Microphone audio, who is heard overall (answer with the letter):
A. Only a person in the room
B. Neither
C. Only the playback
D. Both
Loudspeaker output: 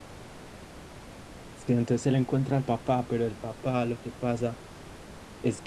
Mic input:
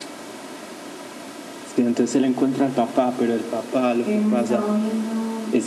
D